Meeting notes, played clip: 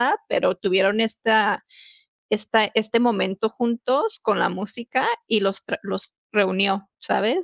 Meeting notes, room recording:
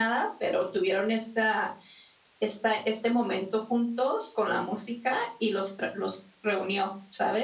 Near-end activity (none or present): none